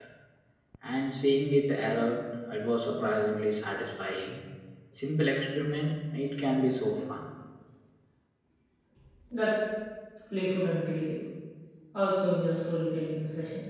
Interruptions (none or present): none